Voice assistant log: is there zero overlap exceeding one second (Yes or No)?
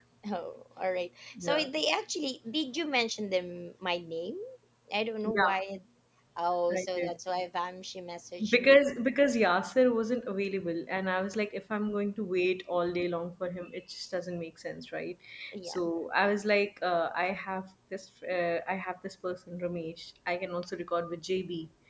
Yes